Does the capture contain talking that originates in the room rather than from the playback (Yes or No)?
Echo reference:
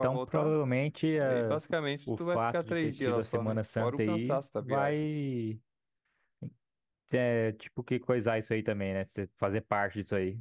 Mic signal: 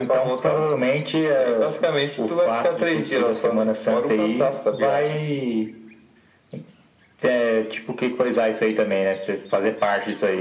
No